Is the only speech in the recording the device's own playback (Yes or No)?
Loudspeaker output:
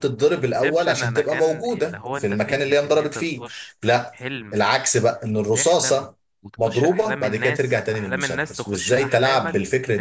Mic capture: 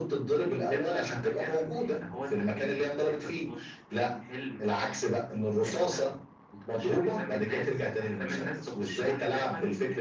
Yes